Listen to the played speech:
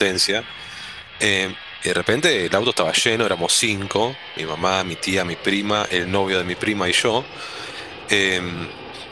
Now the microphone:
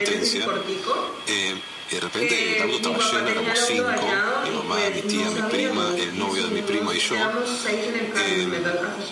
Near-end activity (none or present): present